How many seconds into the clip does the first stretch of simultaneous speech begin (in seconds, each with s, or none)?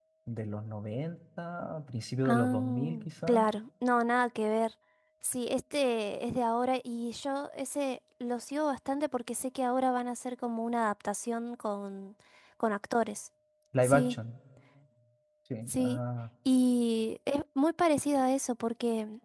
2.2 s